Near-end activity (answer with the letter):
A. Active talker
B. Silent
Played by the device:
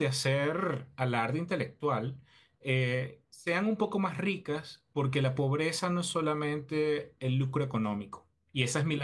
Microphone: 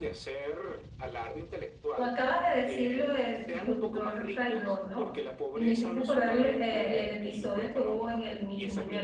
A